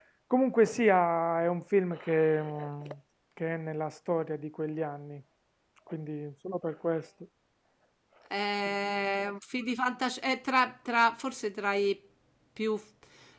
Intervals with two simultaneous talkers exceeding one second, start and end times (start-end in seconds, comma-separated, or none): none